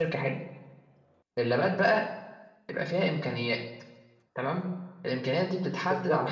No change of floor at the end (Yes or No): No